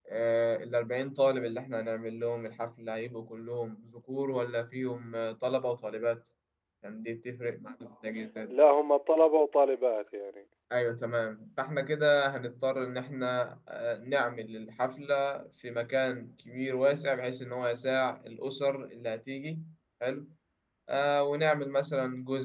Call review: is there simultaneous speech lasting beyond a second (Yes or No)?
No